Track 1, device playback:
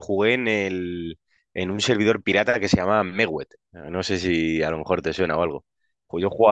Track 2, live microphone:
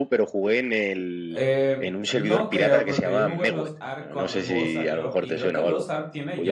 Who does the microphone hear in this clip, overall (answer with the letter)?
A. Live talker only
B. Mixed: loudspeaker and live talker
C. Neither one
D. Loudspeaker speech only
B